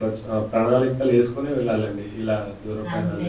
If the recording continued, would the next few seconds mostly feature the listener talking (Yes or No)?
Yes